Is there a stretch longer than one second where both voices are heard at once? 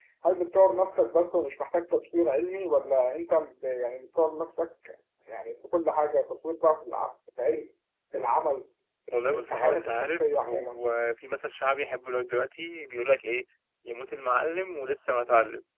Yes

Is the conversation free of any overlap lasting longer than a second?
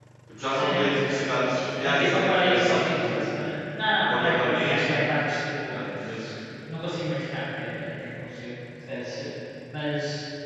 No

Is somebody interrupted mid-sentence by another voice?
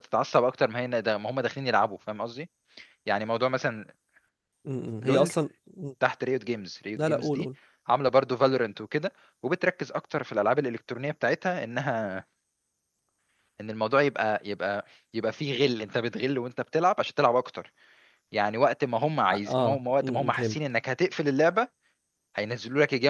Yes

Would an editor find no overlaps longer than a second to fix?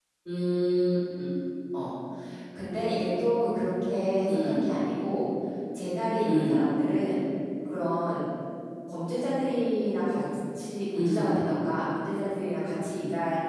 Yes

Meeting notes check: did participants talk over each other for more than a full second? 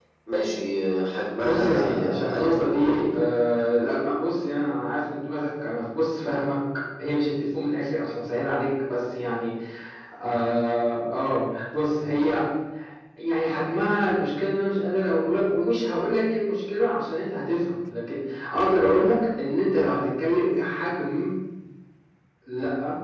Yes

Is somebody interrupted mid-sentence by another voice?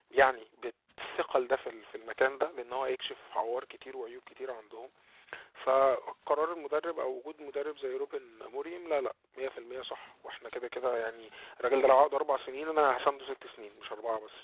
No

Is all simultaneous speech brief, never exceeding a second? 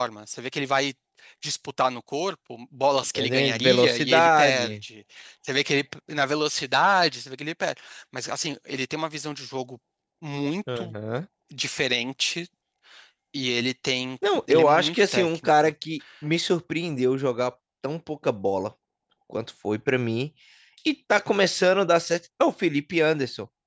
No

